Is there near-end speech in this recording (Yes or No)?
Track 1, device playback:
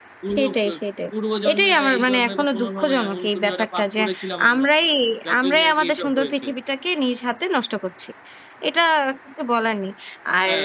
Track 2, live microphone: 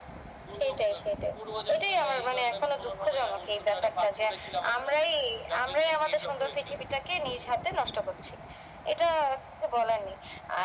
No